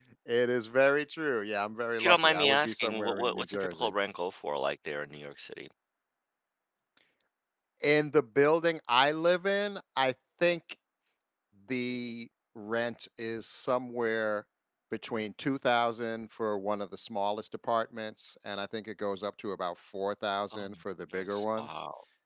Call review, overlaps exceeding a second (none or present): present